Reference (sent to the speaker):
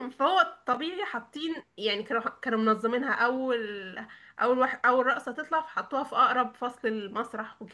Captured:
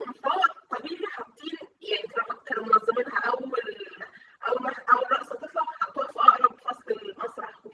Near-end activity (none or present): none